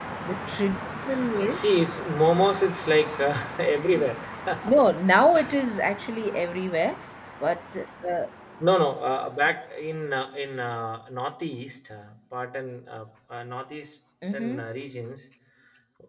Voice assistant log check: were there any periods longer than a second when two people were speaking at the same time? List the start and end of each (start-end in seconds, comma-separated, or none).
none